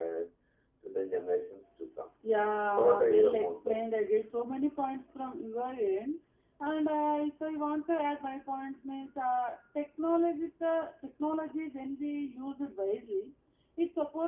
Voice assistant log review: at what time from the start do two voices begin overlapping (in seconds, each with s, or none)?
2.8 s